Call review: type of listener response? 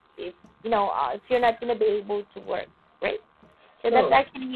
listening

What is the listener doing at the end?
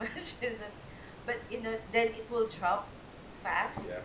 listening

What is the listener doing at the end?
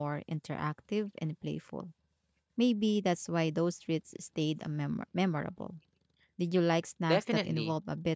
taking over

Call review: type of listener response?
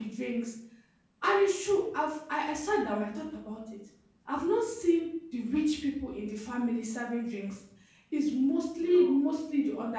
listening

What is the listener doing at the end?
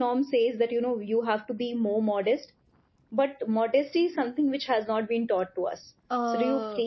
taking over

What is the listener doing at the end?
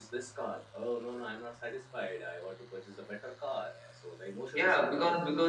taking over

